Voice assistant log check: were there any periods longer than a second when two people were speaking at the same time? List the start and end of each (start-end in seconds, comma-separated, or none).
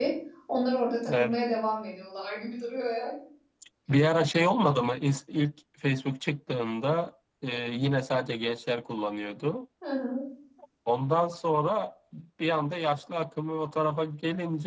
none